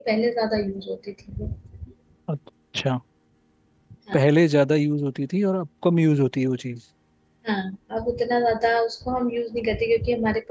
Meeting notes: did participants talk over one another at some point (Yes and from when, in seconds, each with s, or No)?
No